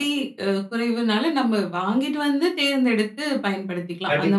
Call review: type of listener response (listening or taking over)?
taking over